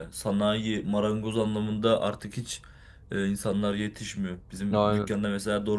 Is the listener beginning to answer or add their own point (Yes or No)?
No